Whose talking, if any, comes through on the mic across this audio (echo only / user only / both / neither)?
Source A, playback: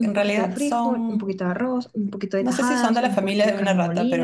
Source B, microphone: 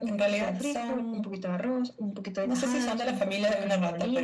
echo only